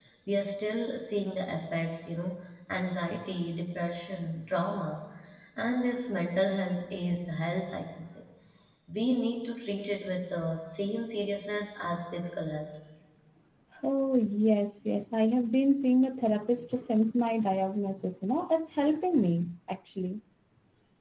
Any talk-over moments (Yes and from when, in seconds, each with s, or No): No